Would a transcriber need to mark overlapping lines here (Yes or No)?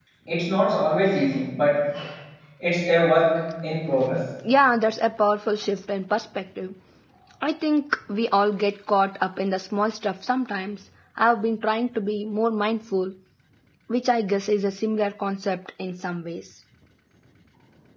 No